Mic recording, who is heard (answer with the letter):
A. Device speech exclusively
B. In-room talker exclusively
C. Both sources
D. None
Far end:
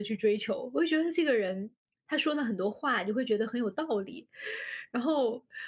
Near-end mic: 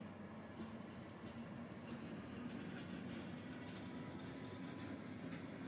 D